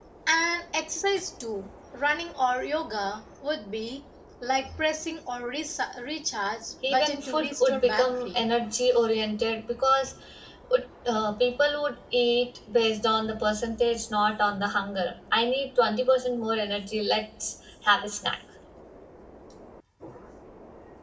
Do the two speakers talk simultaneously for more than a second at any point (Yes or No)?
Yes